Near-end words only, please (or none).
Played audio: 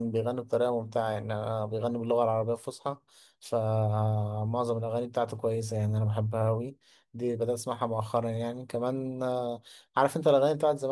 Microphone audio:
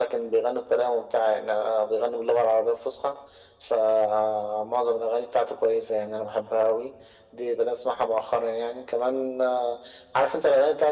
none